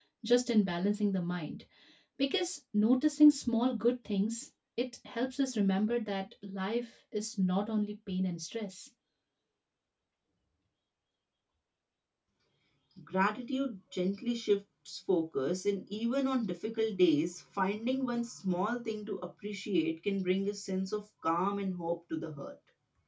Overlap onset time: none

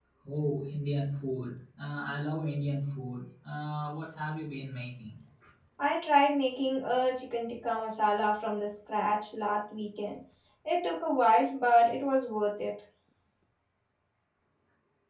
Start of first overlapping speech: none

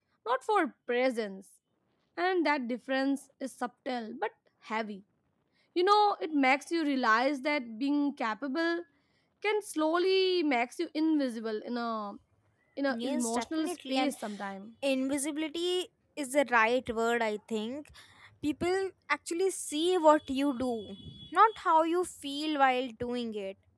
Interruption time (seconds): 13 s

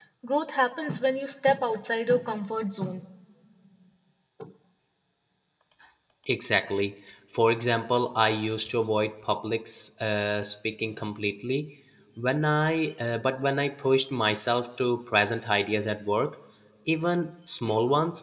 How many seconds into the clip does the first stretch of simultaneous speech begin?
none

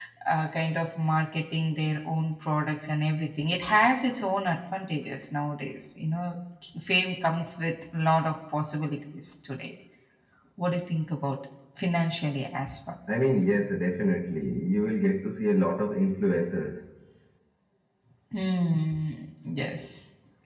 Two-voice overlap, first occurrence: none

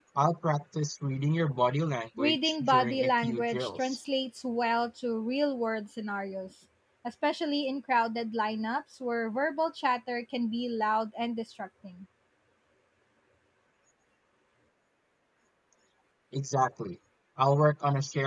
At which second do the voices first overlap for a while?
2 s

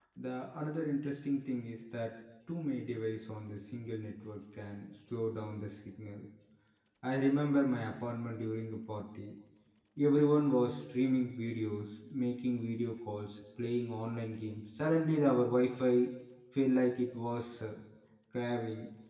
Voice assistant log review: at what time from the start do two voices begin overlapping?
none

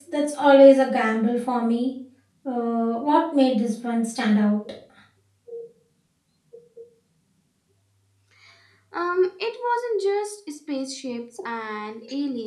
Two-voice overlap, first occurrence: none

